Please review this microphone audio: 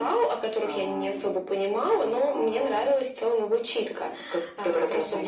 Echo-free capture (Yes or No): No